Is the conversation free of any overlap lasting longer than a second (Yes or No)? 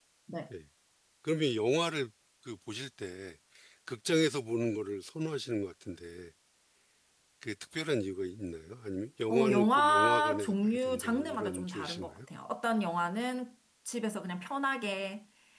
No